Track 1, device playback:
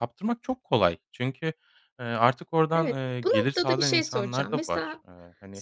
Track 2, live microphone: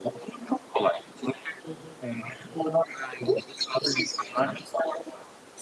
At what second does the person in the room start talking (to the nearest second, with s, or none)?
none